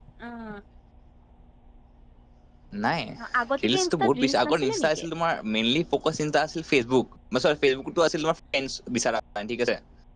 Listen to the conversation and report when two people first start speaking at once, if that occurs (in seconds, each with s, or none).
3.6 s